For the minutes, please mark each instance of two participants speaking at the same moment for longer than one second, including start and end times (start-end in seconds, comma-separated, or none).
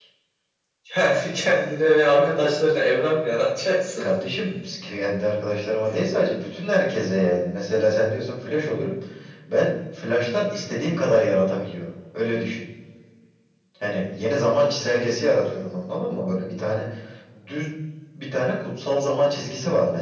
none